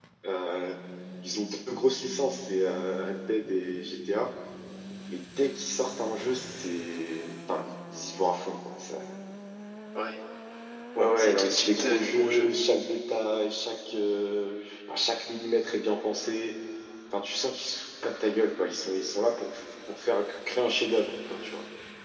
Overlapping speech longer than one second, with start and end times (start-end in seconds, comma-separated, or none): 11.2-12.5